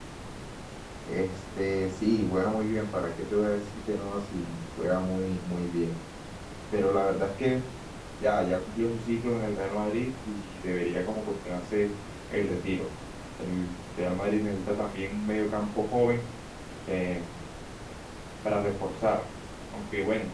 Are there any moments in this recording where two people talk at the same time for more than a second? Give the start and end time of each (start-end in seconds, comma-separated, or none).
none